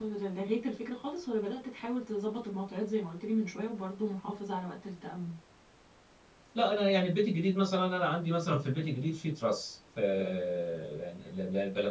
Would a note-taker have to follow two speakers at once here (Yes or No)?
No